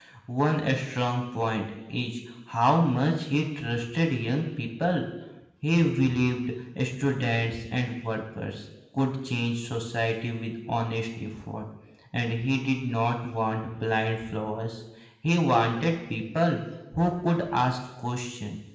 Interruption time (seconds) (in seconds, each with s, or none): none